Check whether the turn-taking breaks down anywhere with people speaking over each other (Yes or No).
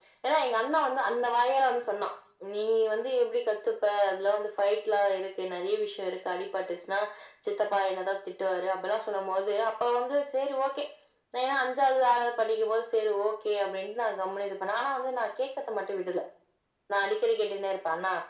No